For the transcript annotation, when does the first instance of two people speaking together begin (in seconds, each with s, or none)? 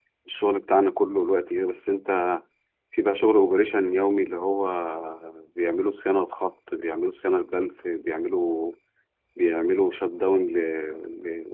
none